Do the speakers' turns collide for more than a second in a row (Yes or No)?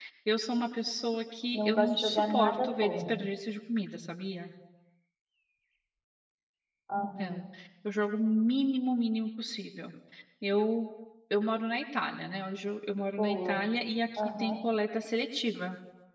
Yes